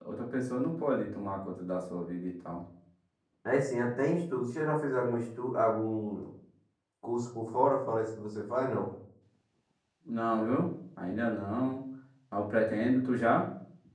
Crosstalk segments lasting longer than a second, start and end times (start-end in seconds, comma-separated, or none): none